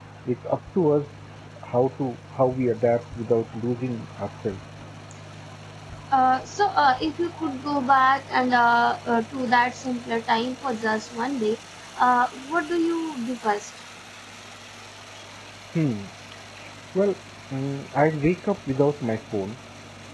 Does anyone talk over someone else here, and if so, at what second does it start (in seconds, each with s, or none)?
none